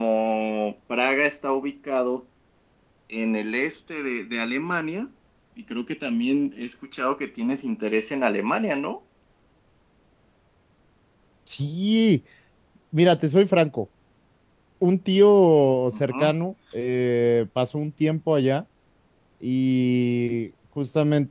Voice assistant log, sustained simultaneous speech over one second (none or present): none